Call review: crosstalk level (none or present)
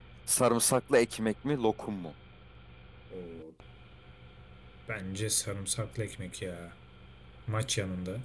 none